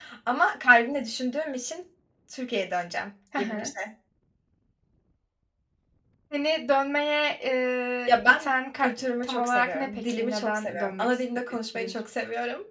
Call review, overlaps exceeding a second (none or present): present